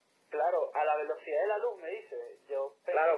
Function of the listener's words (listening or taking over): taking over